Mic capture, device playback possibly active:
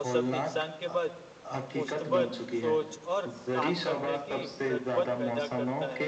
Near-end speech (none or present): present